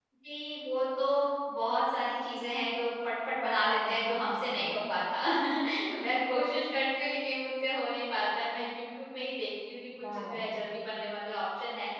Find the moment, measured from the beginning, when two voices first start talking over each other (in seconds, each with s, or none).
3.4 s